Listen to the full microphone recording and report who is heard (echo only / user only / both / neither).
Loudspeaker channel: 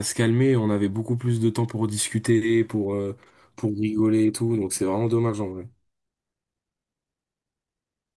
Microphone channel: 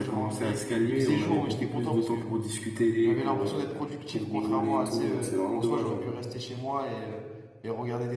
both